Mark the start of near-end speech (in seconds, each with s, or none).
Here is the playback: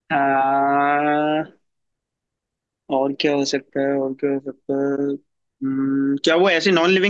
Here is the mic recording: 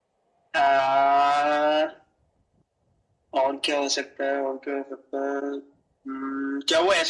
none